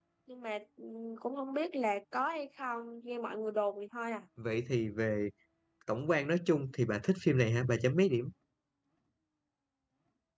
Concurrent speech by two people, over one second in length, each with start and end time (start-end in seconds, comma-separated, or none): none